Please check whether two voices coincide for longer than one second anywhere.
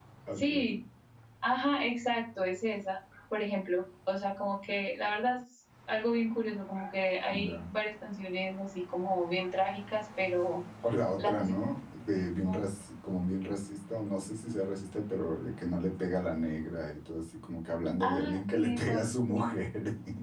Yes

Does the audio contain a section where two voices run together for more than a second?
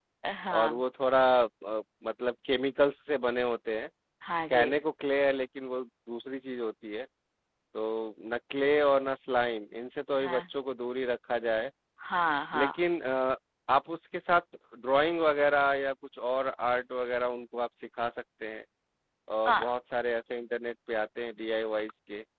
No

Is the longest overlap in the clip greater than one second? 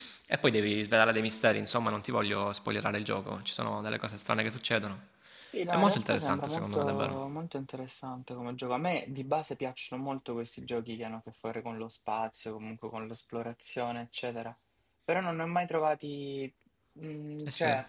Yes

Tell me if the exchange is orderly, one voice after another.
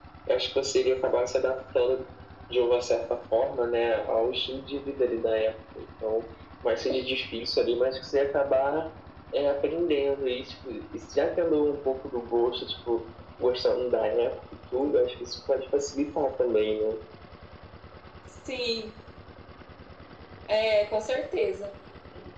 Yes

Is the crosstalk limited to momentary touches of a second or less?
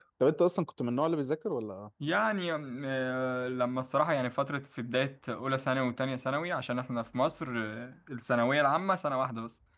Yes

